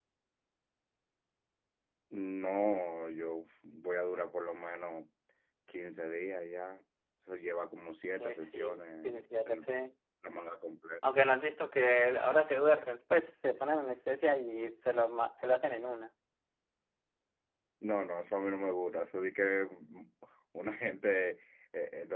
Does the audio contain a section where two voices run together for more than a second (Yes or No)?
Yes